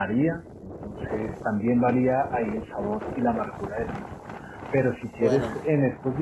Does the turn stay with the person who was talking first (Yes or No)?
Yes